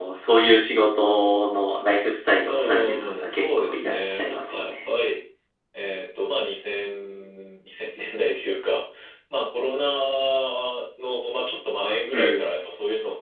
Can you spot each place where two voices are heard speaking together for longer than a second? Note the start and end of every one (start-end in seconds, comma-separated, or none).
2.5-4.9